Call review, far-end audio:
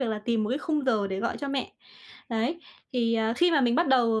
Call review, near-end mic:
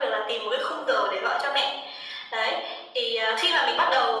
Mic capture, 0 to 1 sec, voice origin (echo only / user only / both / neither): echo only